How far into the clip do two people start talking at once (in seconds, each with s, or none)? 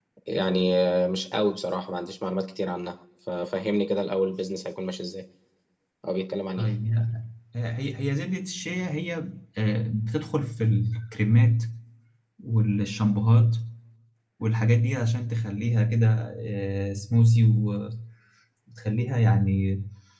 none